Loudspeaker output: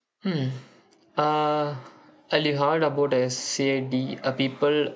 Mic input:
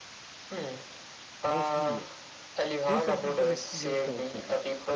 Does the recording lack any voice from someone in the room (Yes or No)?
No